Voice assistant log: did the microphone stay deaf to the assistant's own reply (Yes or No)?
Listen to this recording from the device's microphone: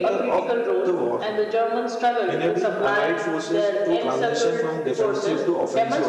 No